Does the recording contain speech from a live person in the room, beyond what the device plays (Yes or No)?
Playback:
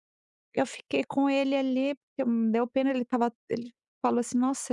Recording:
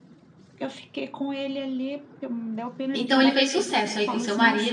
Yes